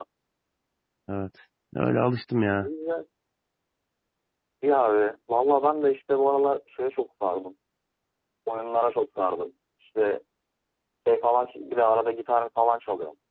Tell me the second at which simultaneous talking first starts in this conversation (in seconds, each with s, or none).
none